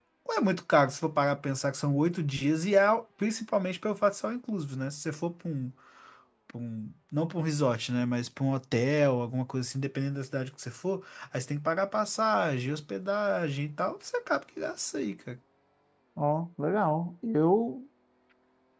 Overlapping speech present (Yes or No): No